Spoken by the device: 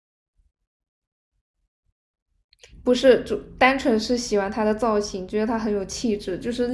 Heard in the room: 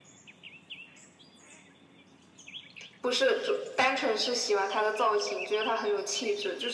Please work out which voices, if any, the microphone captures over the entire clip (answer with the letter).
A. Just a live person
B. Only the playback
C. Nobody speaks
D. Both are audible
B